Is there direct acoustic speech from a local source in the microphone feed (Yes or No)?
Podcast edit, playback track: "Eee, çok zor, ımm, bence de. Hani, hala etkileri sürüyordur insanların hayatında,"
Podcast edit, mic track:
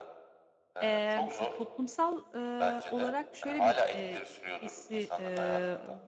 Yes